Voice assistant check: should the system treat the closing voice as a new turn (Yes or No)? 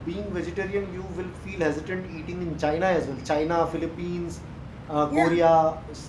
No